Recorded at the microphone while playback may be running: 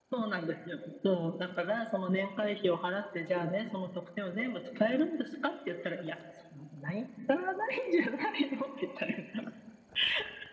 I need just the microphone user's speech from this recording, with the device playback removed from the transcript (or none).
none